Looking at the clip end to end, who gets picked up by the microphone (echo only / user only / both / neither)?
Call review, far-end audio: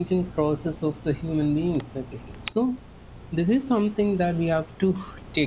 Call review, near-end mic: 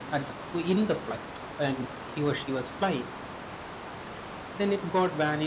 user only